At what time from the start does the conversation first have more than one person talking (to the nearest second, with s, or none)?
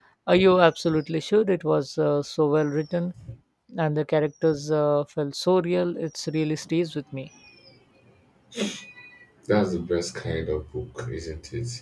none